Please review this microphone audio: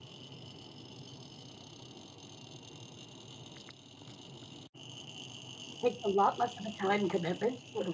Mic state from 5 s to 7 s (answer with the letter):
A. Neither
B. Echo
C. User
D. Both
C